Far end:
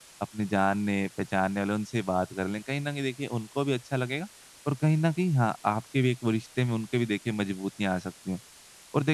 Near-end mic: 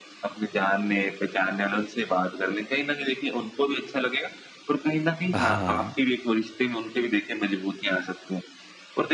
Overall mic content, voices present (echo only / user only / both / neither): both